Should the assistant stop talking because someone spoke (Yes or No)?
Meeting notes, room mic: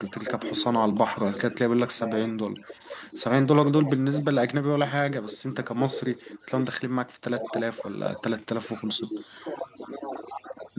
Yes